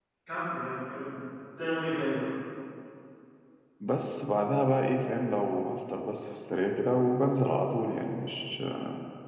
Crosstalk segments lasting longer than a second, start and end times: none

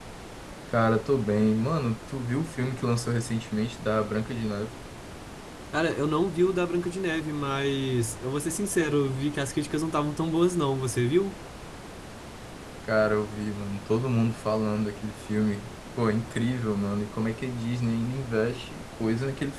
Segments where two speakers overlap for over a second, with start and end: none

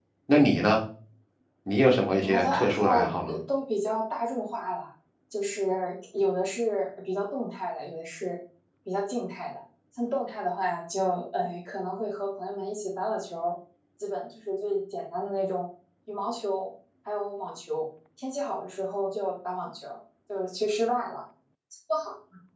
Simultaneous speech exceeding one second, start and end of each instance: 2.1-3.4

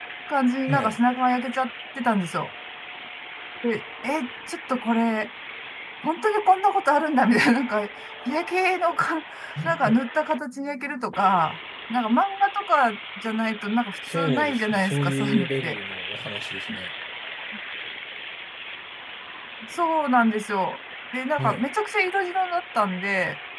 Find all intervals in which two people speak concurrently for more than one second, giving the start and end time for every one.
14.1-15.8

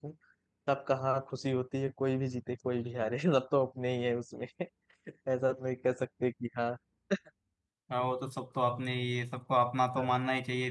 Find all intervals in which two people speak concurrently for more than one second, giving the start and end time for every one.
none

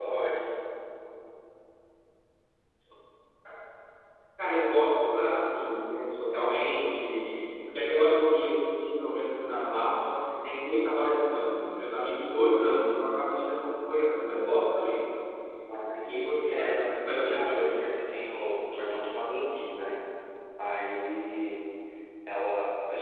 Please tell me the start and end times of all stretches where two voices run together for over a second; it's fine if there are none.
16.1-17.7

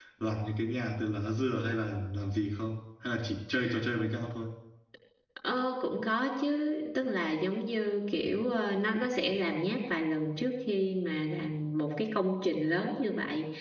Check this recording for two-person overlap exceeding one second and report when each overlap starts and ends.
none

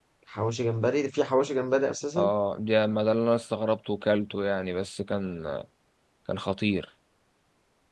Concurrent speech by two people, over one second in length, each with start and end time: none

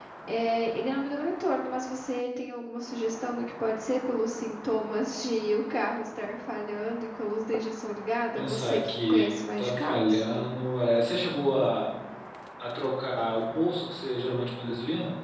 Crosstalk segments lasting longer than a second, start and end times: 8.3-10.2

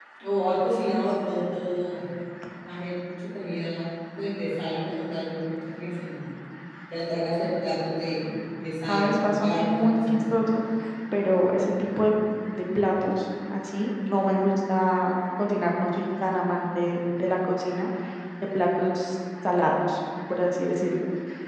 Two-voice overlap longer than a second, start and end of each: 8.9-10.4

